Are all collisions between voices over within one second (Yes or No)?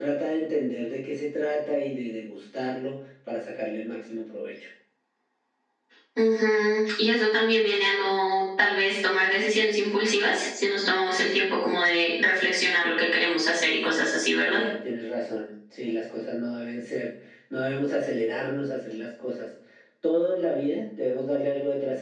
Yes